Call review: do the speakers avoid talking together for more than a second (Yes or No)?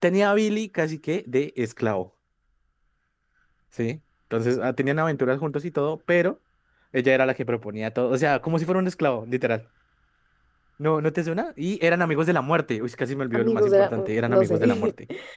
No